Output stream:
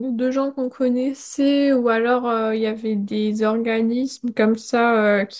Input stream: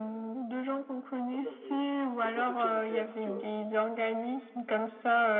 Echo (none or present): present